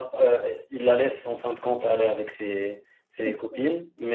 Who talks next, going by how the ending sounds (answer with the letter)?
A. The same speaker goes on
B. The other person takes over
A